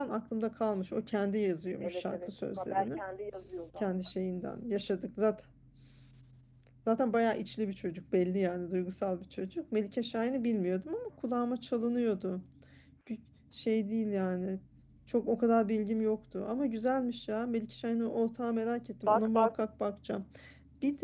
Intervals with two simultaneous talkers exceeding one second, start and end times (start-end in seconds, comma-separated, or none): 1.8-3.0